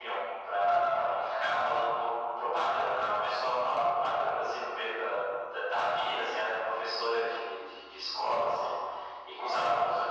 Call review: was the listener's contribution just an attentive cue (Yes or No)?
Yes